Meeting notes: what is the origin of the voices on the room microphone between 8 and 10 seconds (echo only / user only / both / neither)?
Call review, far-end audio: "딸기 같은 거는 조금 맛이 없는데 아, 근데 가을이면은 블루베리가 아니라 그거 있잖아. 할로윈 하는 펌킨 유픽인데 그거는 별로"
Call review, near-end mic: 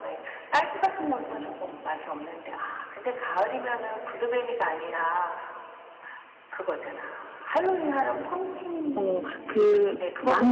both